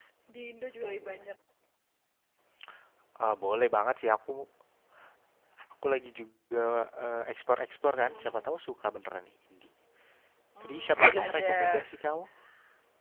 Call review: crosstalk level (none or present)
present